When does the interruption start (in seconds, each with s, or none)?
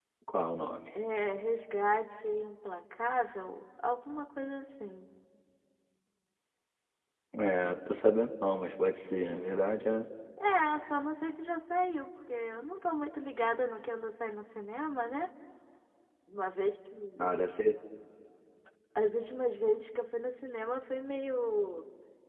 none